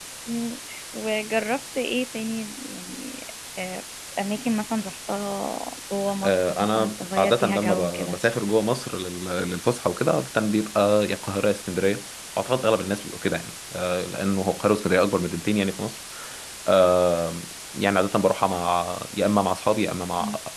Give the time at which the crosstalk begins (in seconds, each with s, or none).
6.2 s